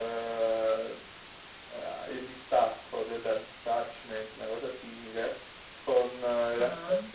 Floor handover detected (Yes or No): No